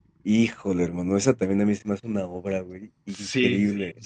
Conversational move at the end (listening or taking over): taking over